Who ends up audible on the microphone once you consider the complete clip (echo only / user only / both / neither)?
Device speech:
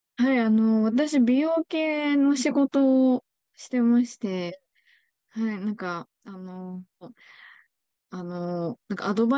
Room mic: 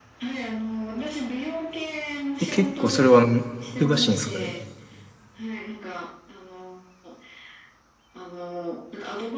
both